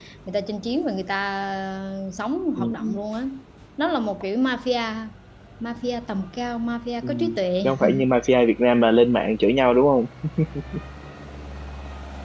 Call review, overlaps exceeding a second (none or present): none